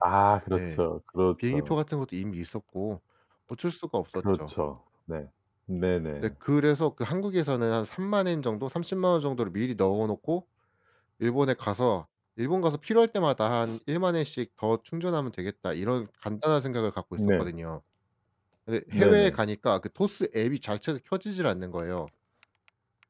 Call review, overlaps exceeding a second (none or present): none